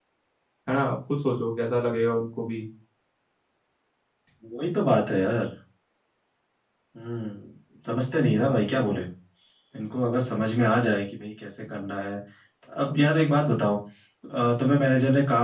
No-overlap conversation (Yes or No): Yes